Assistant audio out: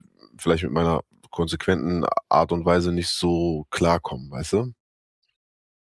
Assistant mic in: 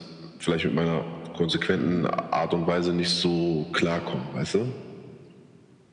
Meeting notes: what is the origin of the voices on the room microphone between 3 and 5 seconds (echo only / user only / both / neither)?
echo only